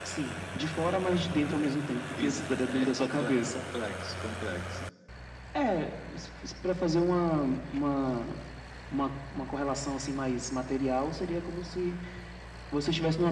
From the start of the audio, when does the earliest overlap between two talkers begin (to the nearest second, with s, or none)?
2 s